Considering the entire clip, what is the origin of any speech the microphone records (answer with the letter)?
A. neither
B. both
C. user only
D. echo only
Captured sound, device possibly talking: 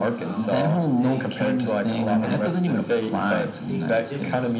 B